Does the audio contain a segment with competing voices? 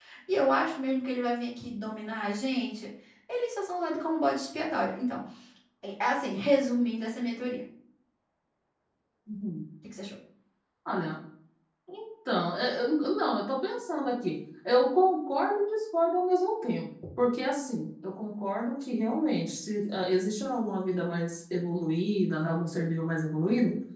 No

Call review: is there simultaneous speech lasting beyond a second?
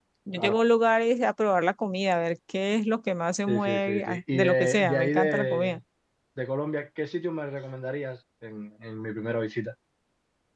Yes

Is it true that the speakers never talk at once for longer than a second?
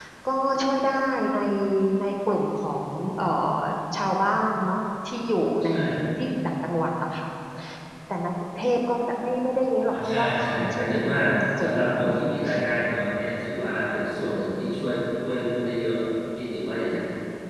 No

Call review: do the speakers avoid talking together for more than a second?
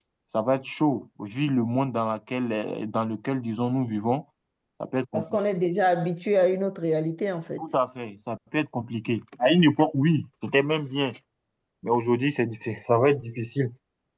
Yes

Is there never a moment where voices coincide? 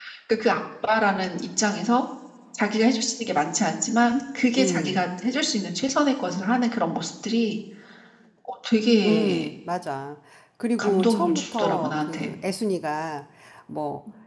No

